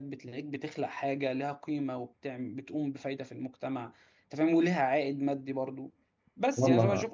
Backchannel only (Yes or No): Yes